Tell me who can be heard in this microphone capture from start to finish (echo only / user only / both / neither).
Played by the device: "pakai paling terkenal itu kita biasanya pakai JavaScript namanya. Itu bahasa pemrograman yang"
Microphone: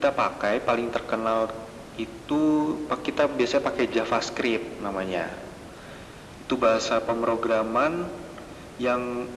echo only